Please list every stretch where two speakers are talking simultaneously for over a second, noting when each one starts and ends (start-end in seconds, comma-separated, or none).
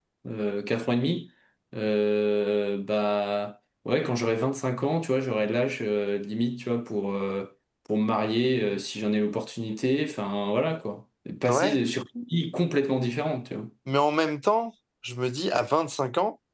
none